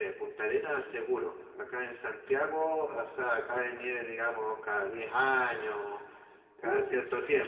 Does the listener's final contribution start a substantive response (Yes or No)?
No